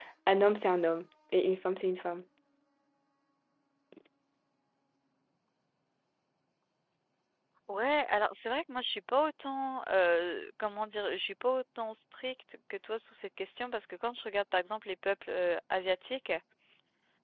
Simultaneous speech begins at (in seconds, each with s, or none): none